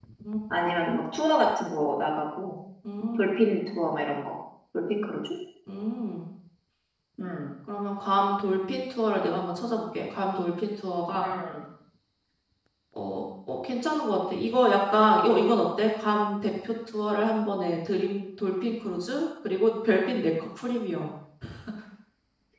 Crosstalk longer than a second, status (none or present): none